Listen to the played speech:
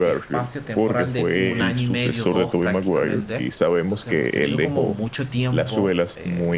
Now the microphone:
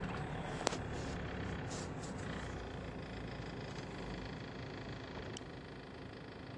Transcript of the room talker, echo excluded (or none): none